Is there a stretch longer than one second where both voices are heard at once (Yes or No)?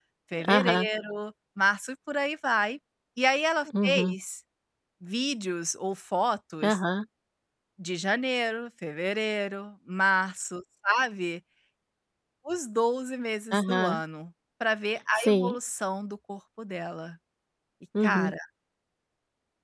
No